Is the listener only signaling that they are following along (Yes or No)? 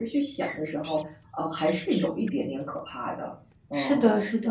No